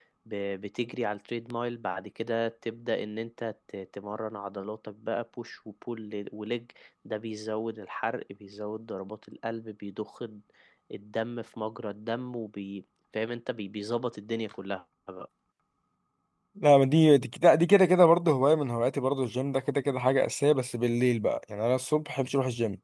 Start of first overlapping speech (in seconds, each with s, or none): none